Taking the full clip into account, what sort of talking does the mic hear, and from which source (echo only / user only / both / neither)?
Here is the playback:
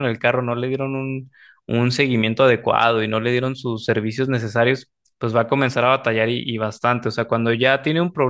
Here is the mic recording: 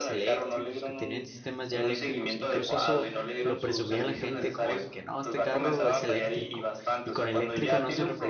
both